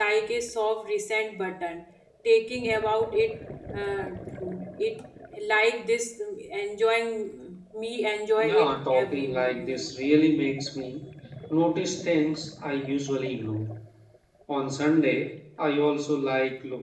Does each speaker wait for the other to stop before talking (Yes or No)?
No